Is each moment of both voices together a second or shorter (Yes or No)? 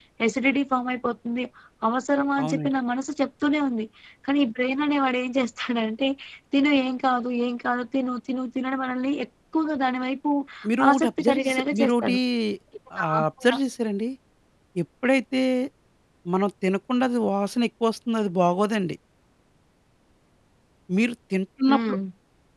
No